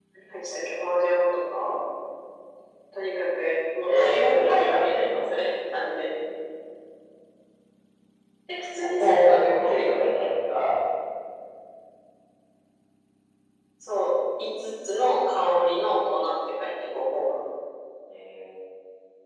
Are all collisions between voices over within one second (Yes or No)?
No